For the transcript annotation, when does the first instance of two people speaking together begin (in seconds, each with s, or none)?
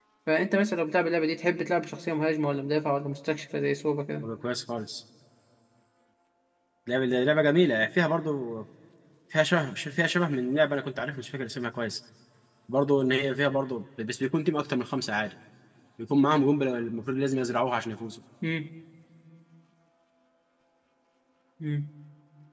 none